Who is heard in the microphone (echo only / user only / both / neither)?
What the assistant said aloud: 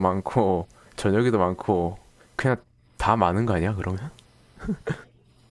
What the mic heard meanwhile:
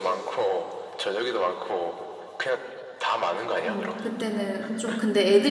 both